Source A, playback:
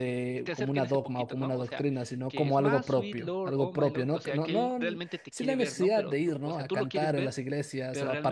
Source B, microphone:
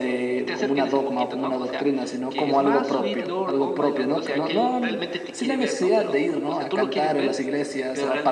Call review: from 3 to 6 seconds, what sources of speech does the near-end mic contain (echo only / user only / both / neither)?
echo only